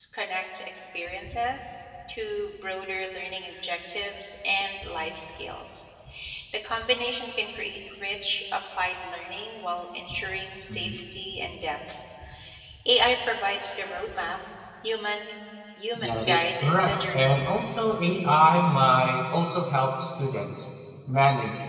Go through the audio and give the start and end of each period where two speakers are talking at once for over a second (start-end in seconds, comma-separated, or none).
16.0-17.5